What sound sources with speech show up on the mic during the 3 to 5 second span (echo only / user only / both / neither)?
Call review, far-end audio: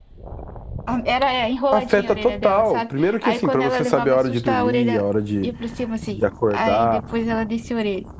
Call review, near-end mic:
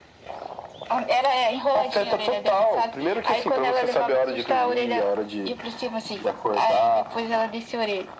echo only